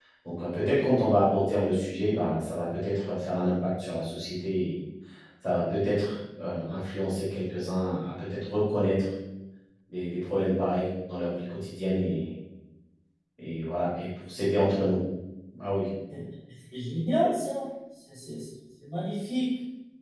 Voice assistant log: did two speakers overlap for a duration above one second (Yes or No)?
No